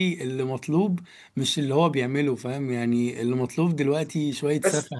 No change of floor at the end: Yes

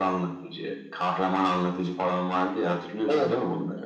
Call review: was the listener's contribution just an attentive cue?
No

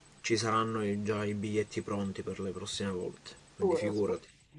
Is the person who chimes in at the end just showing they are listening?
No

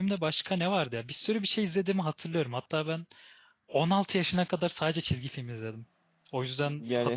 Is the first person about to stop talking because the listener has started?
Yes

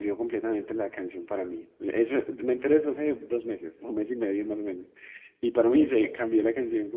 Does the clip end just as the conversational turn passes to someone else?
No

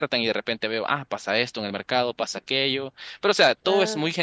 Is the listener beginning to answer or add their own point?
No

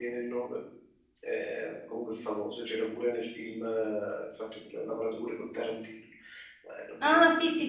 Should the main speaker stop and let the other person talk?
Yes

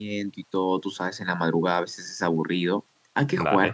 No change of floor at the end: Yes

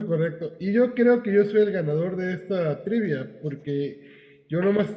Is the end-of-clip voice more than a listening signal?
No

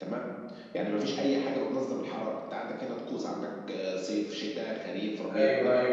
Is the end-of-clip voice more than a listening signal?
Yes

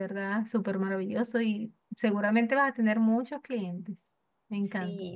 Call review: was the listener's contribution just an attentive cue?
No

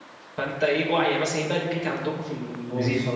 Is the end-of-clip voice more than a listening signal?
Yes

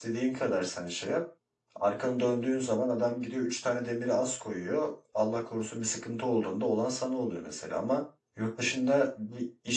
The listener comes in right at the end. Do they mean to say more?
No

